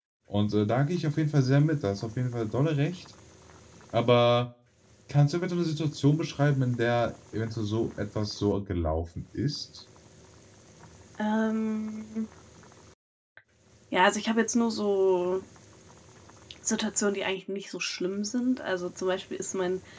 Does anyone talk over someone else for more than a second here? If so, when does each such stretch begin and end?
none

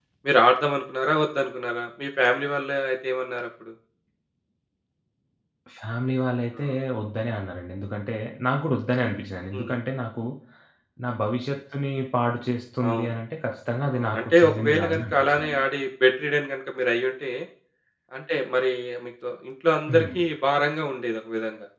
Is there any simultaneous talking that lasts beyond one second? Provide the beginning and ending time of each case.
14.0-15.6

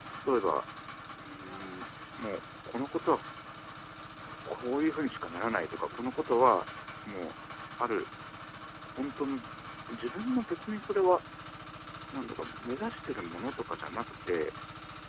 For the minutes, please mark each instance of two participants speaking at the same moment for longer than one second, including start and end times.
none

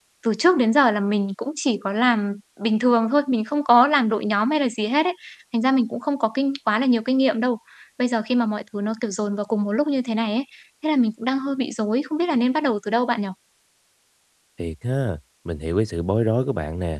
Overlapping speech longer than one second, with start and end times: none

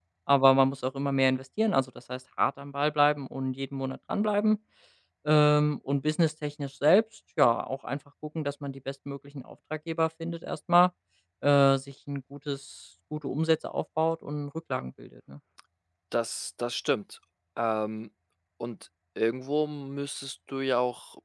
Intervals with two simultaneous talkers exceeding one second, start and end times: none

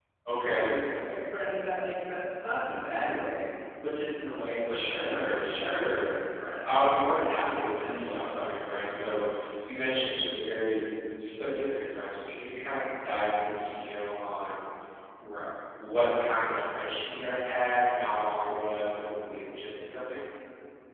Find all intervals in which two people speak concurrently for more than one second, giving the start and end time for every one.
4.7-6.1, 7.8-9.2

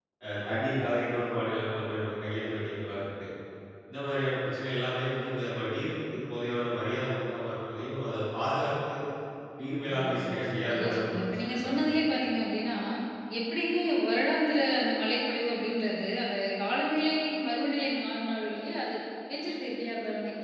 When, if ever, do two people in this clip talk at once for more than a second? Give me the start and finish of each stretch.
10.7-11.9

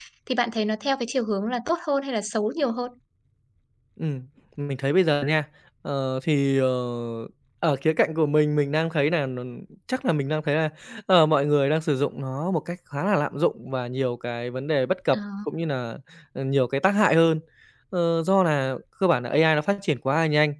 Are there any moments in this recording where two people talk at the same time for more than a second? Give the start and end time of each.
none

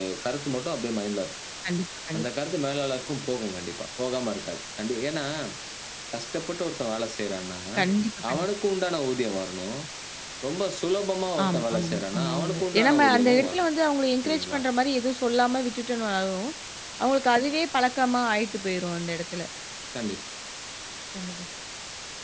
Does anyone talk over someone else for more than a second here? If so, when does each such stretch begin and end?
11.4-13.7

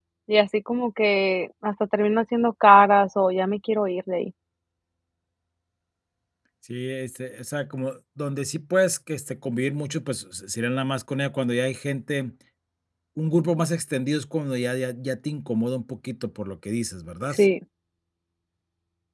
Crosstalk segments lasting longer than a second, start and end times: none

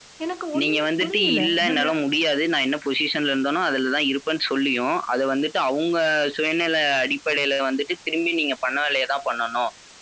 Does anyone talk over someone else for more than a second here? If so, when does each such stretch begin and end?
0.6-1.8

